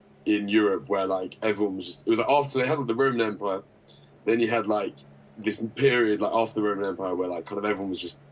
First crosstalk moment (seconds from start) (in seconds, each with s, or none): none